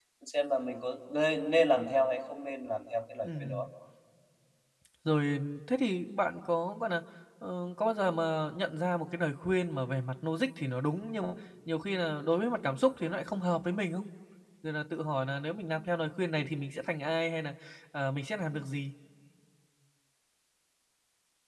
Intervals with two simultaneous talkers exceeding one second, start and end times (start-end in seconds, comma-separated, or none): none